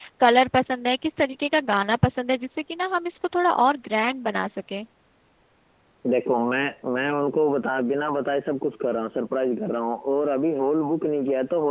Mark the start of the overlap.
none

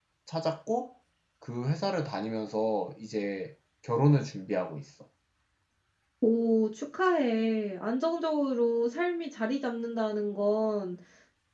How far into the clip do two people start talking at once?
none

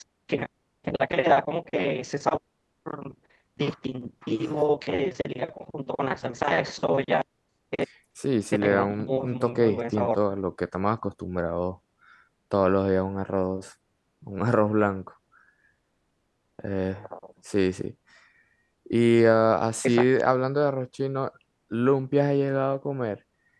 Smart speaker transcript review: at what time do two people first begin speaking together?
8.5 s

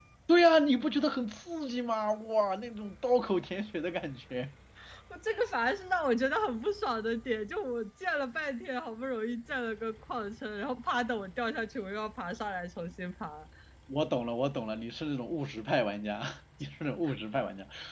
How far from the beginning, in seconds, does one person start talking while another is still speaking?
none

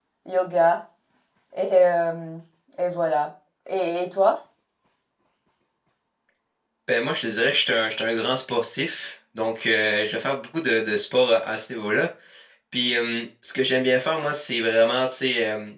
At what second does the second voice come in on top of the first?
none

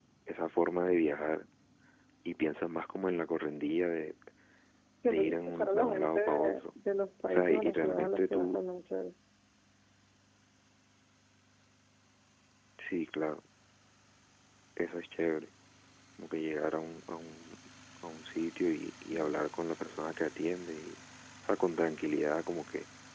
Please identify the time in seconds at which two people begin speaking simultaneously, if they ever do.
5.0 s

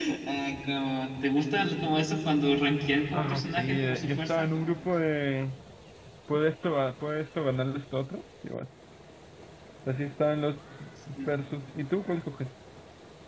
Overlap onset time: 3.1 s

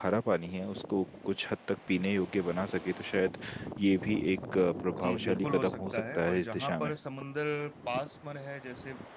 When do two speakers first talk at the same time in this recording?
5.0 s

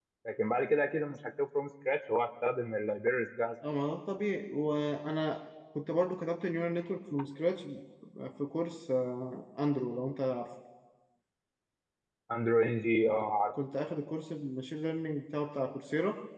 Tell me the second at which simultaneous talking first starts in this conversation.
none

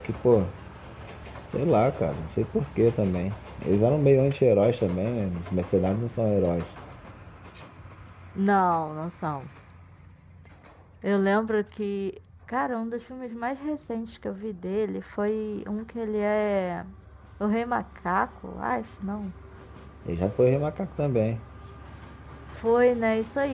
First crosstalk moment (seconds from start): none

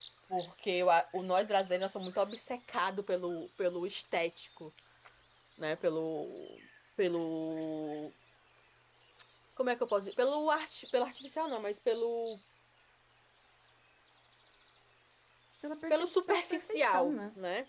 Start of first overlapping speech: 15.9 s

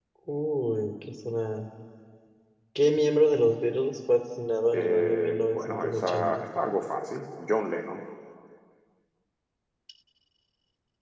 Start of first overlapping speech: 4.7 s

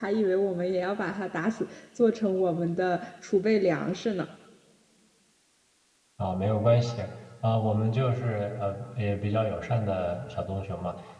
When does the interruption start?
none

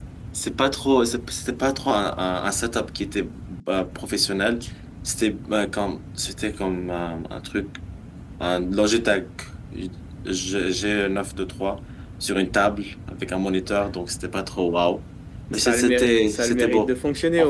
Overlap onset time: 15.5 s

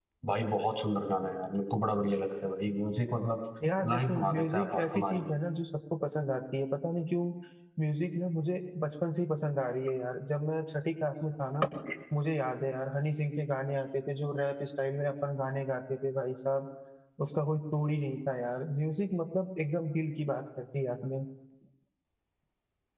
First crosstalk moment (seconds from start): 3.9 s

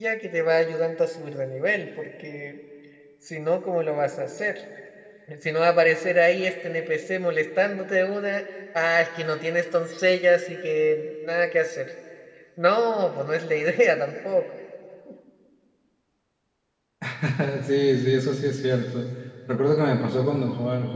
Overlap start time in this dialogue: none

